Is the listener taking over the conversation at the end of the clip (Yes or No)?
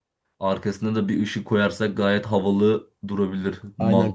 Yes